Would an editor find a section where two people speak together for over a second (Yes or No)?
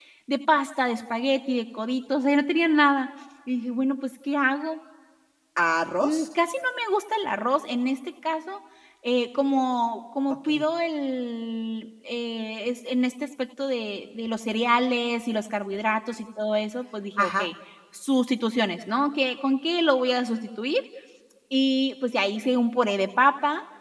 No